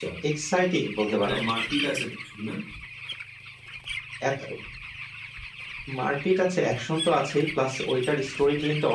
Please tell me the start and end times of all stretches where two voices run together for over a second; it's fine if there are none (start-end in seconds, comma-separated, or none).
none